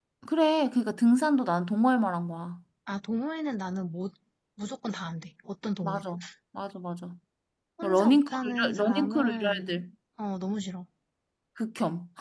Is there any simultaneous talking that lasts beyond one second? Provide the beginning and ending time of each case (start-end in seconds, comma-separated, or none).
7.8-9.8